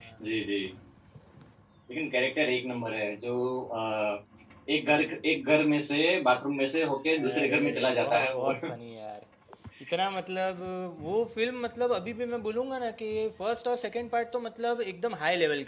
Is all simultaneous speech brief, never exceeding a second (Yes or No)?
No